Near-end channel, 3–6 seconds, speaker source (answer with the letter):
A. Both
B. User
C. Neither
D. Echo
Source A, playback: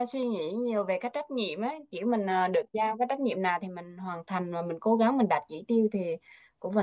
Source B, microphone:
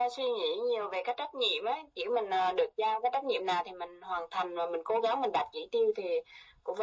D